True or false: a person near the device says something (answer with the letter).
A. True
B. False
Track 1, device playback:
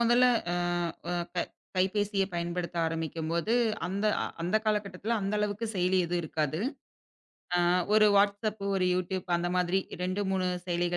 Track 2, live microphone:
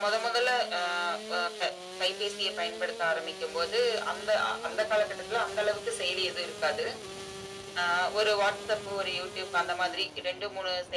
B